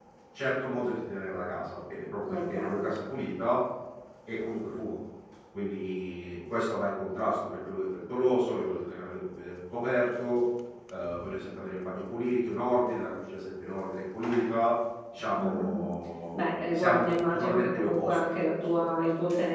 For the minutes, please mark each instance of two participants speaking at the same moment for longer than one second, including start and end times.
16.3-18.9

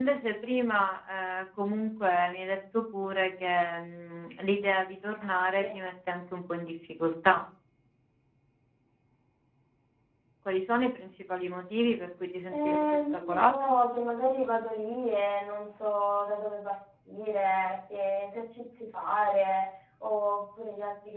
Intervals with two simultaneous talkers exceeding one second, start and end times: 12.5-13.7

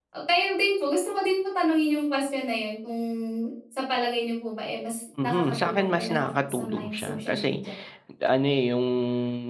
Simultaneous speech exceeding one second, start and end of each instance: 5.2-7.7

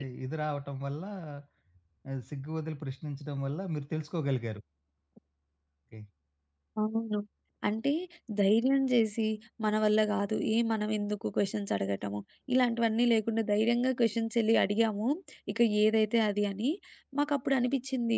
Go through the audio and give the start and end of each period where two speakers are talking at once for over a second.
none

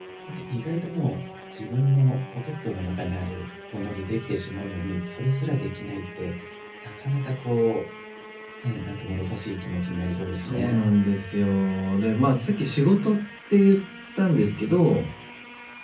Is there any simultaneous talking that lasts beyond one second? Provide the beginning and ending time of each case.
none

